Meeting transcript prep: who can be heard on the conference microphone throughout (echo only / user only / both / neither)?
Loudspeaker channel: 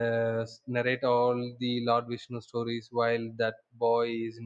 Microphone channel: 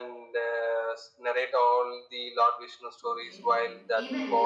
both